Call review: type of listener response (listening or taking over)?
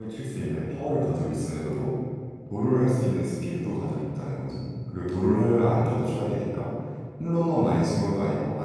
listening